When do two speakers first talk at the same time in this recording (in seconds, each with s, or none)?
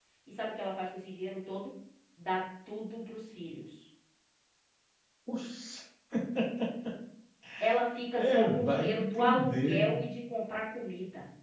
8.2 s